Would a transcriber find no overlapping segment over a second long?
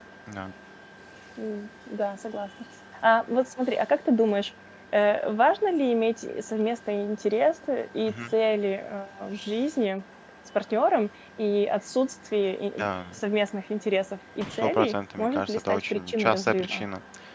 No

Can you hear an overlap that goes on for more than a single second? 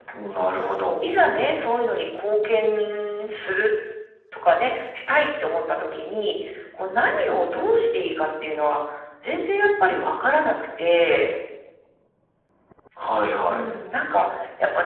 No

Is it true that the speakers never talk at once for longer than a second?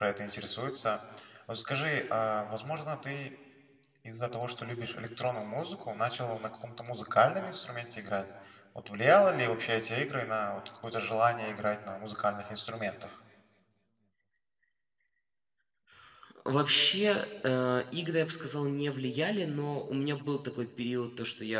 Yes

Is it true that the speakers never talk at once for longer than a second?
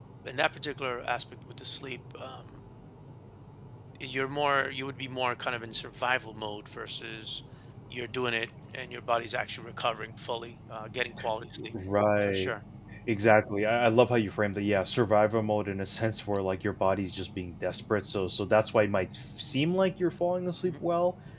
Yes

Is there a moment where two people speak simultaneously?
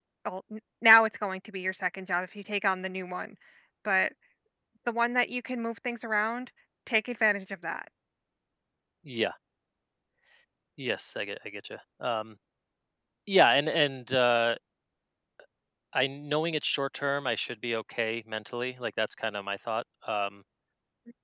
No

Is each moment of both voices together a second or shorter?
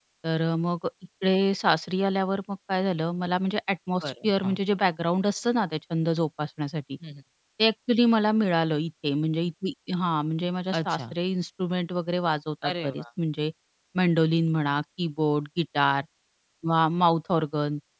Yes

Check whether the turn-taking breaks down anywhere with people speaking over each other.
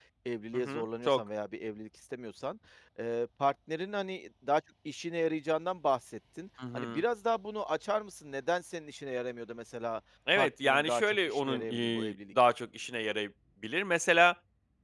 Yes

